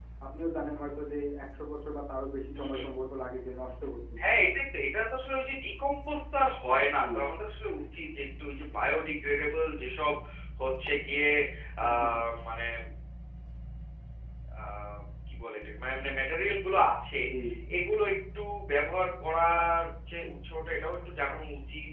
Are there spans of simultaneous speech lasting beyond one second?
No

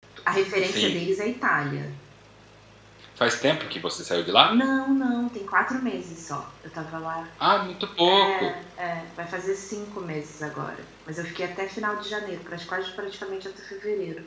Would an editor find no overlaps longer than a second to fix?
Yes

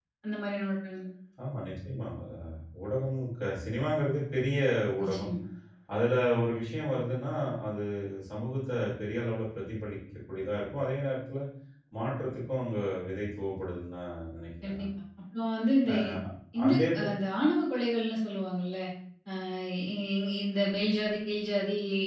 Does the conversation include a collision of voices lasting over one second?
No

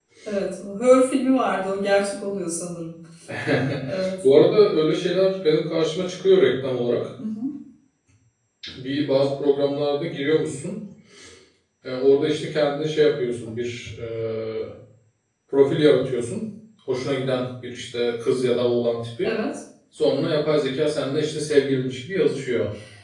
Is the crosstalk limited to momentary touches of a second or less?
Yes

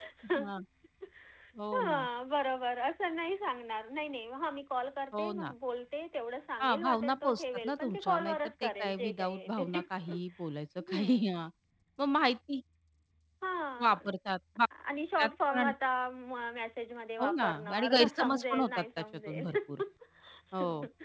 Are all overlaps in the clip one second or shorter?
No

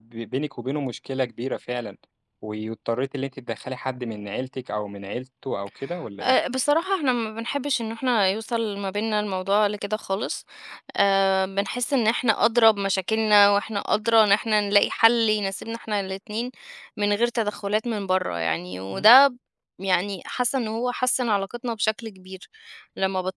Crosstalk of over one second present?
No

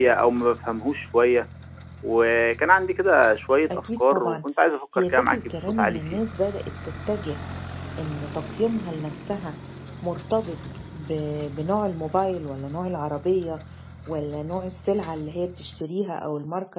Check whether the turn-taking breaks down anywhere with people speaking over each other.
Yes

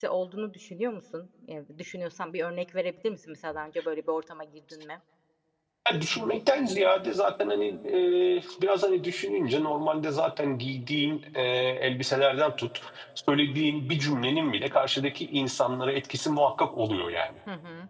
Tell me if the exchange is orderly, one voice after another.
Yes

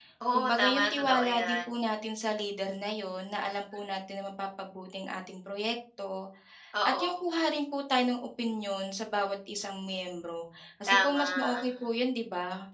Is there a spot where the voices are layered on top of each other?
Yes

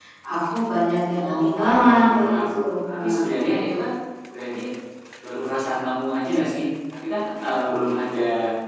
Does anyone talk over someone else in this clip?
Yes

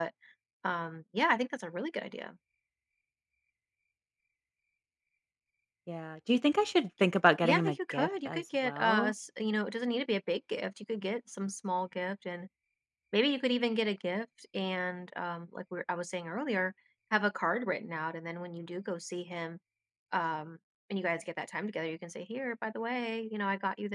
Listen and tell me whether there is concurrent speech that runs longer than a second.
Yes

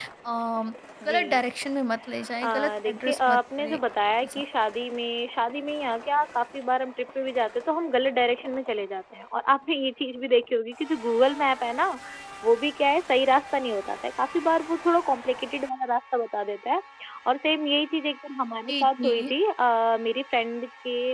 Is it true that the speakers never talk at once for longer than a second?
No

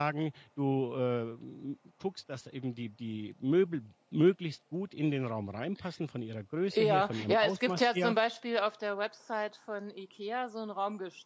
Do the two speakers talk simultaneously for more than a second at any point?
Yes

